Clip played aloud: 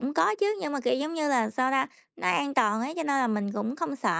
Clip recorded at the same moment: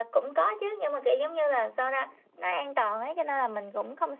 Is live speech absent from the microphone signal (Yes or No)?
Yes